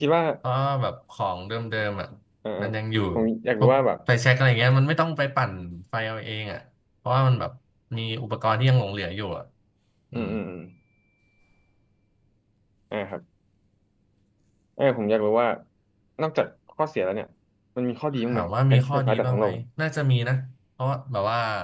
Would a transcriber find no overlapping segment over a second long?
No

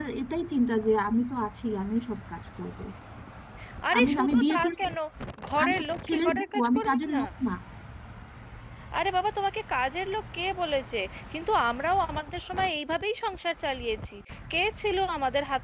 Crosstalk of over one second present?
Yes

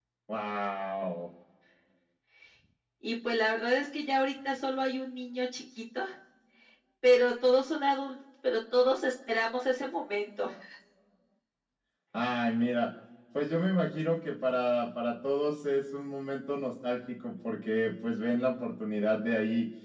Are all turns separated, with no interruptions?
Yes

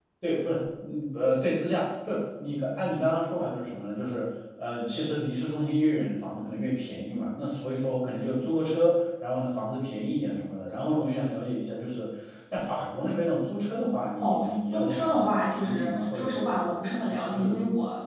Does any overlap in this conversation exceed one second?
Yes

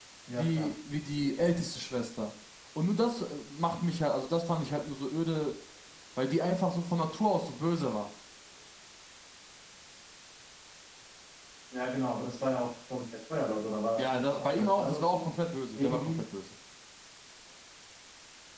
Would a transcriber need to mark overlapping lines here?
Yes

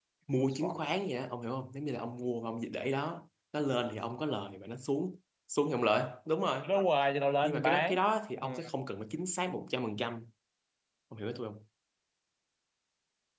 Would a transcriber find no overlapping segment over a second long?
Yes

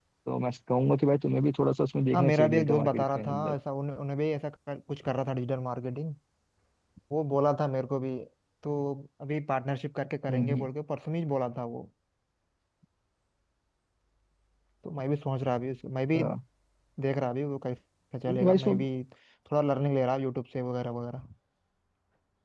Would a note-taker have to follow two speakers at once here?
Yes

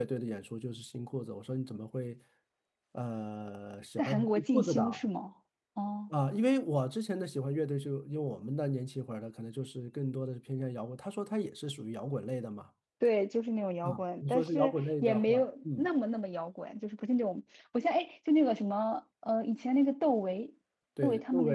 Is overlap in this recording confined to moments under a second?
No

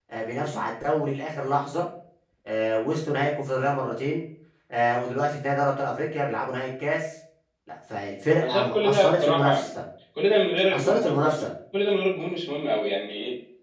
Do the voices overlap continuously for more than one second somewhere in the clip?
Yes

